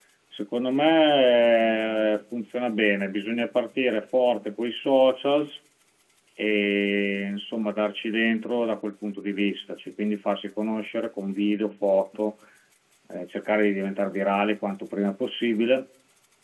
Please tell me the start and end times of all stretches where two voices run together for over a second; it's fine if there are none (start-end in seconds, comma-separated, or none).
none